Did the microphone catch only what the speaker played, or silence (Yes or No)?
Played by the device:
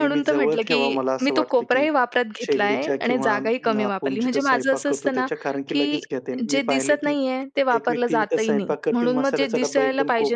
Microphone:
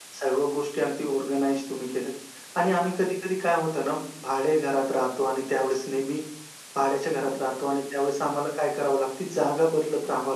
No